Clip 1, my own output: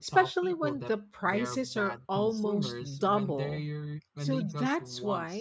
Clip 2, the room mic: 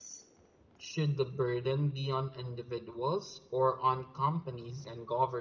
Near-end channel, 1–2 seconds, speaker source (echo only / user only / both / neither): user only